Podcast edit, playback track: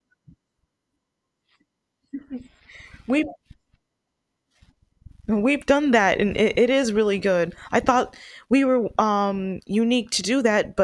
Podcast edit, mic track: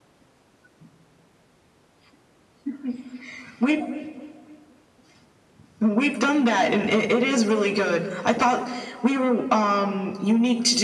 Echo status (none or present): present